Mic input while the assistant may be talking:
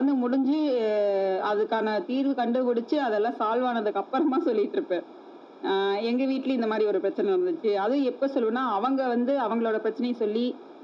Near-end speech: none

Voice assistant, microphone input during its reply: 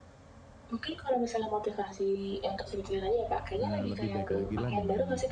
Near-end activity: present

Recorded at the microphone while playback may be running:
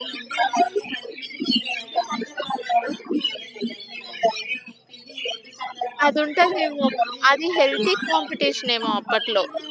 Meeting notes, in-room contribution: present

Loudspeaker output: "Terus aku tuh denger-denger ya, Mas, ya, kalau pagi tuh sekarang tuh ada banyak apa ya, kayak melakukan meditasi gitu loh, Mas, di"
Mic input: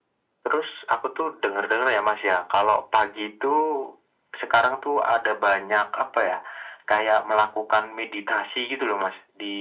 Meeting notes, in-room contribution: none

